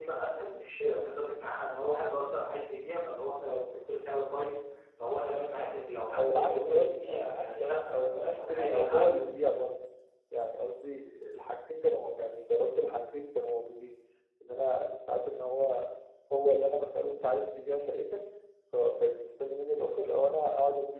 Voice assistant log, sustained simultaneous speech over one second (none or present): present